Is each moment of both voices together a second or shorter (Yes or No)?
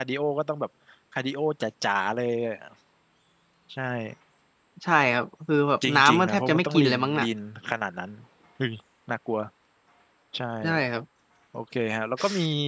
No